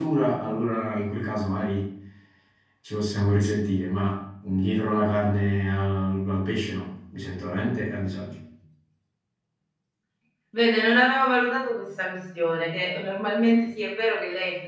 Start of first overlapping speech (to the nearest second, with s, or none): none